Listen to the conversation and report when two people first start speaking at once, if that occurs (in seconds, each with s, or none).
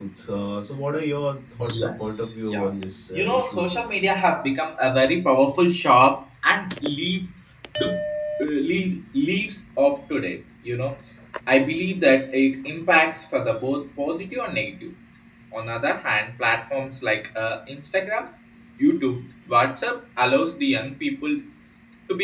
1.5 s